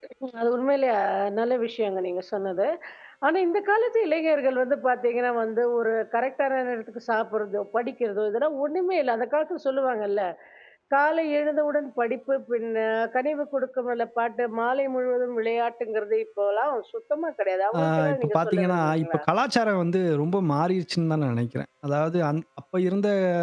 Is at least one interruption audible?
Yes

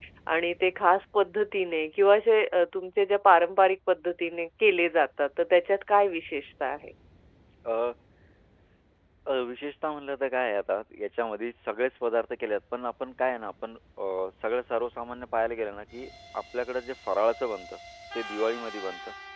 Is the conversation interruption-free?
Yes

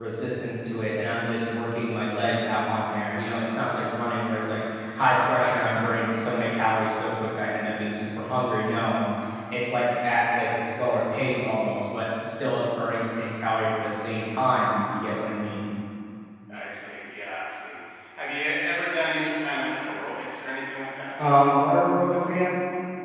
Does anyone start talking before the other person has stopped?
No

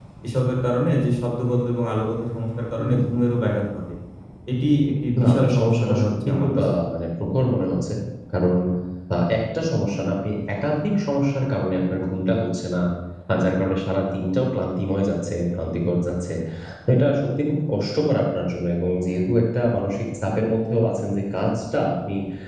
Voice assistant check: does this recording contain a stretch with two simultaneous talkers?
Yes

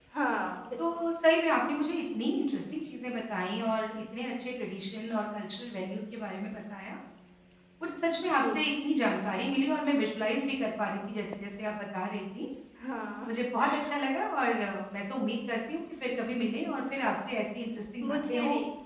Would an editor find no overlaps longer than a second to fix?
Yes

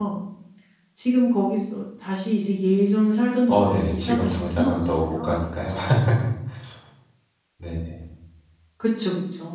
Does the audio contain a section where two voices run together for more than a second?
Yes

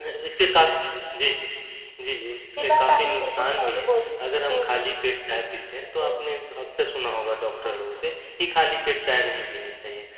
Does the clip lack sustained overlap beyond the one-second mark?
No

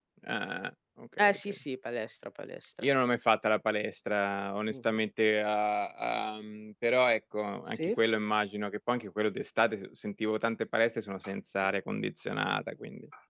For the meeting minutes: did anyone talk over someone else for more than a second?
No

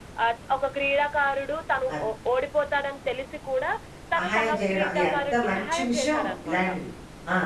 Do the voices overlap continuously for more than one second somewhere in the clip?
Yes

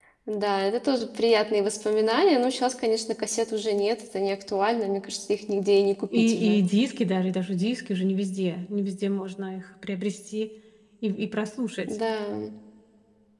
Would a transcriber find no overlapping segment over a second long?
Yes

